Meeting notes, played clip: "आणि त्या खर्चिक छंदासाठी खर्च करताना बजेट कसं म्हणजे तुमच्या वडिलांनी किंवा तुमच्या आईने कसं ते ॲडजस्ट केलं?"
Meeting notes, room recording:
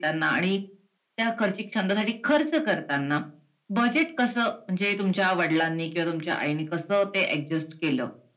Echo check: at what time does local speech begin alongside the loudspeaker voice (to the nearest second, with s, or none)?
none